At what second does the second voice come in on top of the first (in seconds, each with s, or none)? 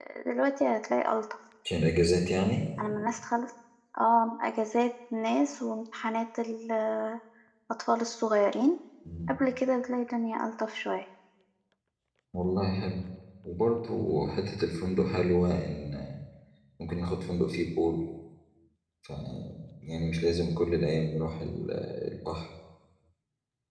none